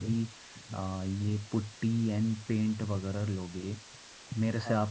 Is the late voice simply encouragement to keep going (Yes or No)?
Yes